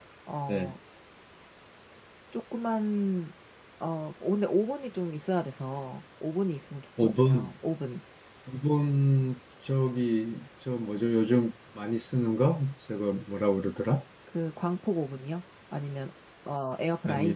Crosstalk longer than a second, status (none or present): none